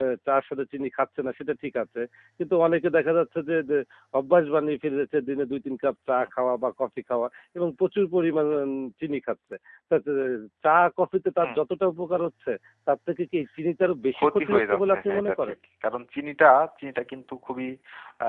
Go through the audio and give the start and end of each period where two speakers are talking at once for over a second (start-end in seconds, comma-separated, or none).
14.2-15.5